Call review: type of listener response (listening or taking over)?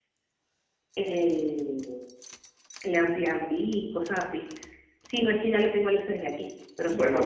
taking over